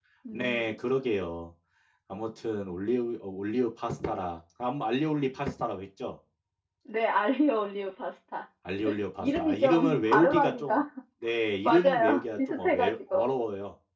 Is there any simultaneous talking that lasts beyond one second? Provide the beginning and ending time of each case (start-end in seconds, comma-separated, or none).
9.2-10.8, 11.7-13.3